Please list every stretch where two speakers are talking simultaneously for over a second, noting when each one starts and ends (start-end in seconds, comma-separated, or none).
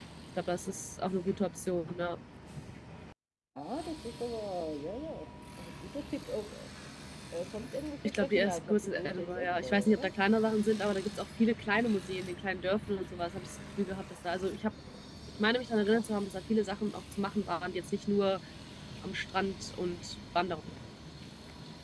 8.0-10.1